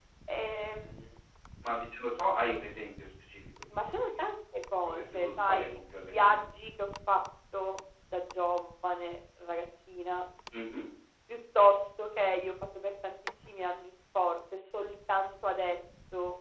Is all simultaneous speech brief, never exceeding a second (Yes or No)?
No